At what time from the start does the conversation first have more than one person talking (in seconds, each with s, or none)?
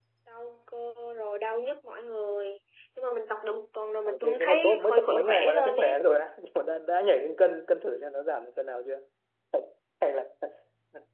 4.0 s